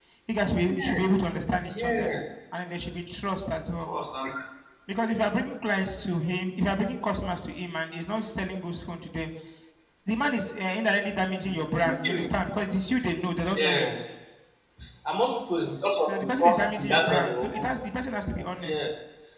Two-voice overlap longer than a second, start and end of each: 16.1-17.6

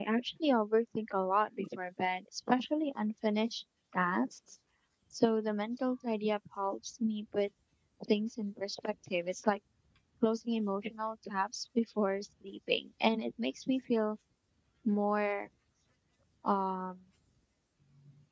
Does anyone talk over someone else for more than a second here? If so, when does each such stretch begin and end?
none

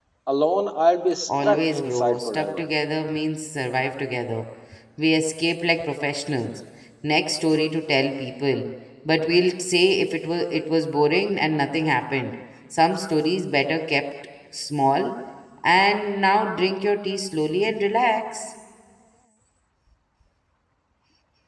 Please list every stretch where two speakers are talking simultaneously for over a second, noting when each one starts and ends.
1.4-2.7

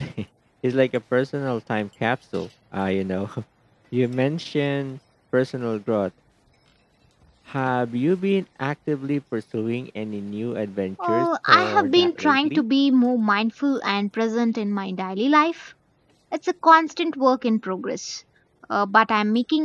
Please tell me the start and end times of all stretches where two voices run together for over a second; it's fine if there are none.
11.0-12.6

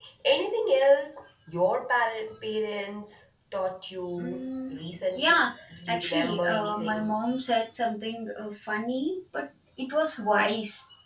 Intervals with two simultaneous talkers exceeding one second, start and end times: 5.9-7.2

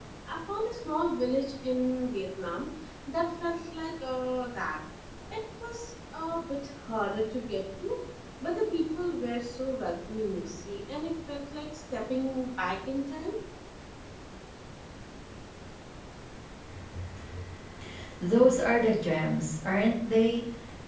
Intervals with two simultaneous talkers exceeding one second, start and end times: none

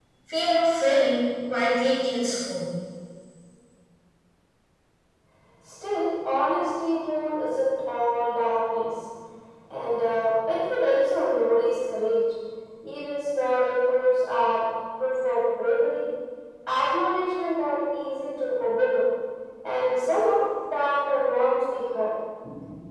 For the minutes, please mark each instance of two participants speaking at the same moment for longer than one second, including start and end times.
none

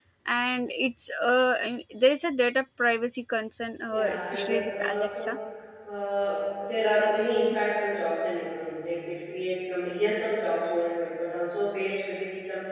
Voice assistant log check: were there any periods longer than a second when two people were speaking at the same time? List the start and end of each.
3.9-5.3

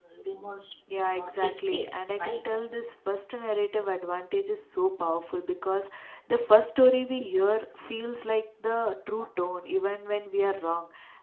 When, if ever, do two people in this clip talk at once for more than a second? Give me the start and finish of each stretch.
1.1-2.5

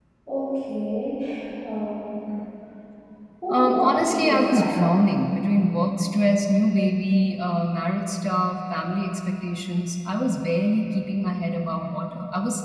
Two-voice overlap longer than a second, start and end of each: 3.5-5.0

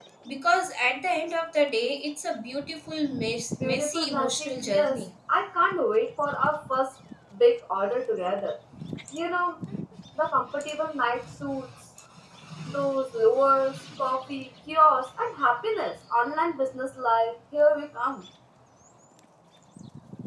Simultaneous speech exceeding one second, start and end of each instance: 3.6-5.0

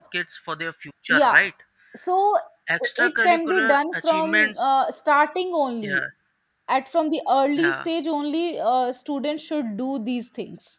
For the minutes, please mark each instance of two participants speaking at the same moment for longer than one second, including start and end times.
2.8-4.7

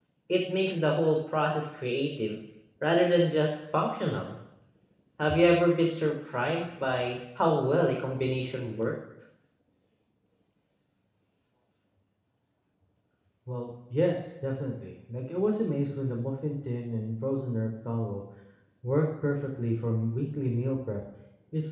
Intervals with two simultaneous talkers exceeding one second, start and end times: none

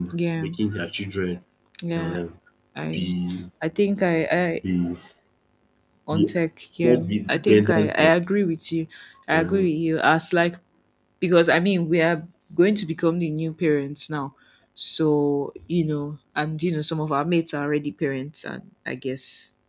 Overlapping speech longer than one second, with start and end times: 6.8-8.1

